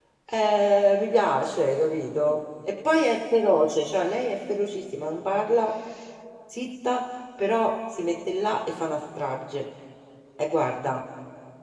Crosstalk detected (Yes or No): No